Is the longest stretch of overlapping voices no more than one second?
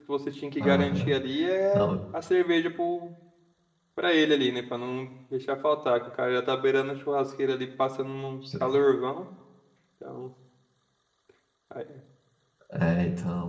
Yes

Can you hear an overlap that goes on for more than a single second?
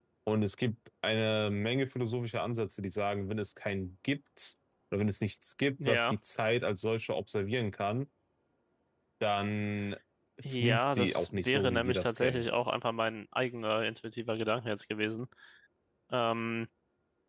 Yes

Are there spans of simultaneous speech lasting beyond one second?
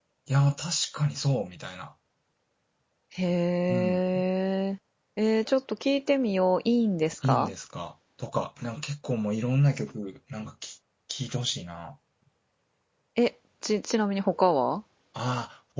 No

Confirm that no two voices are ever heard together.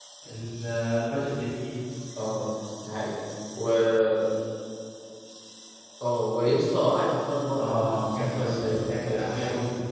No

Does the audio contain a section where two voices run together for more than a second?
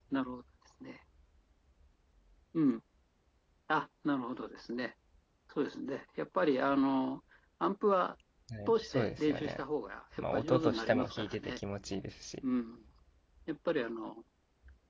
Yes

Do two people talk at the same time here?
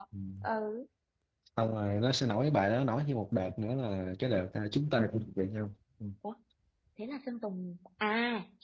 No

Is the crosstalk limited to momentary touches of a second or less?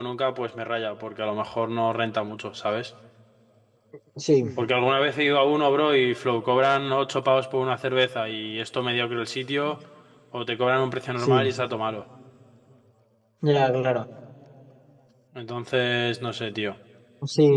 Yes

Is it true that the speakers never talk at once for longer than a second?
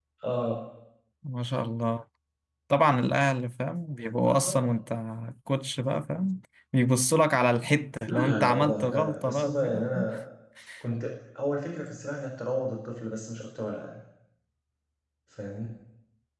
No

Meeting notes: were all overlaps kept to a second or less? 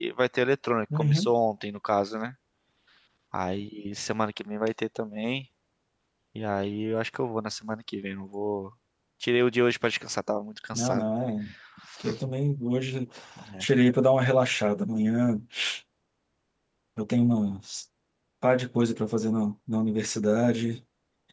Yes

